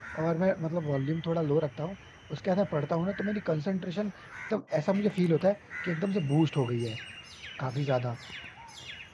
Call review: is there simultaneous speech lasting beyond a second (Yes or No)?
No